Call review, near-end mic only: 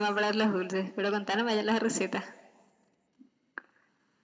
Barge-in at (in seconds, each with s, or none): none